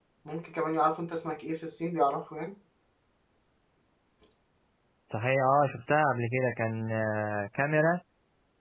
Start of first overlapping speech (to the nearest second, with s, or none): none